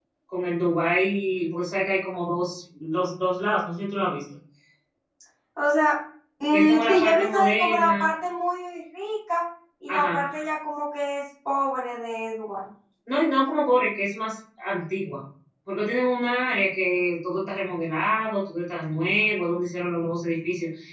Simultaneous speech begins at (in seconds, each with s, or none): 6.5 s